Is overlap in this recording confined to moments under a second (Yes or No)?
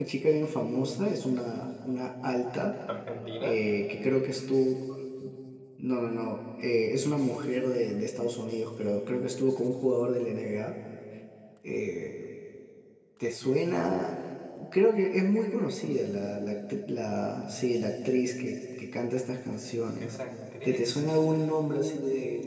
Yes